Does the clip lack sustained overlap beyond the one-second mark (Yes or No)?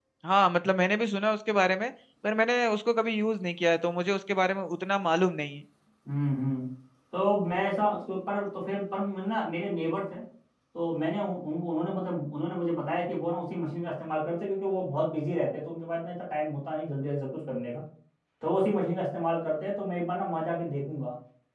Yes